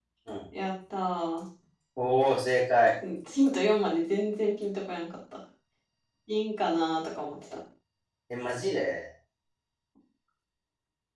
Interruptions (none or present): none